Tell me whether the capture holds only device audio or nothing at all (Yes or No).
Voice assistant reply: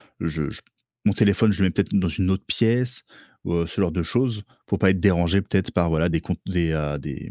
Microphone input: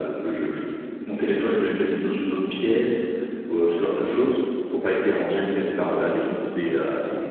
Yes